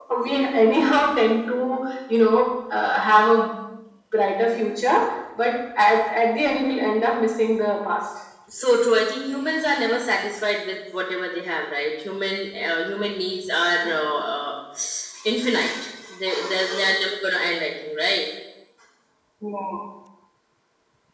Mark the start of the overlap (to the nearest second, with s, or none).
none